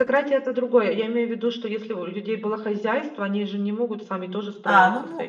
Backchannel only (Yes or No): No